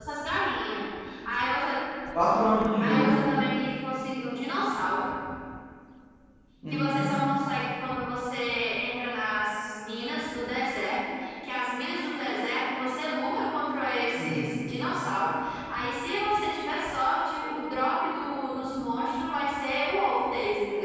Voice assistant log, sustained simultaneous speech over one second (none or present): none